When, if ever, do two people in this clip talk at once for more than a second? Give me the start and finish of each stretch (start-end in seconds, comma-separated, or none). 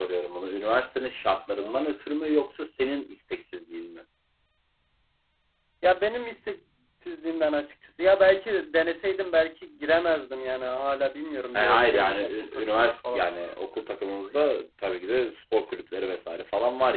11.5-13.2